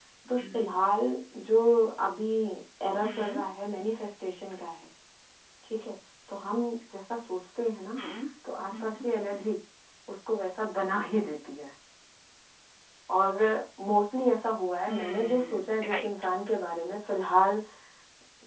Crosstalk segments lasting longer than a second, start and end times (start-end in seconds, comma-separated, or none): 14.9-16.1